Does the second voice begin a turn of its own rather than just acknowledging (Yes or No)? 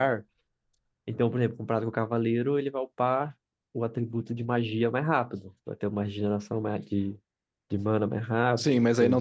Yes